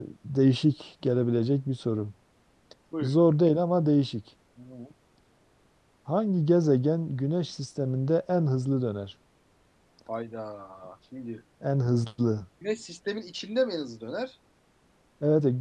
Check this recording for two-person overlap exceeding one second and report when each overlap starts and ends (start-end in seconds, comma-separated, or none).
none